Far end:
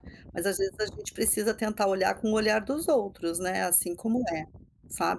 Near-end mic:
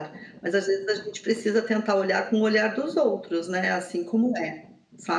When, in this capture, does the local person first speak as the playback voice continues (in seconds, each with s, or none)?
none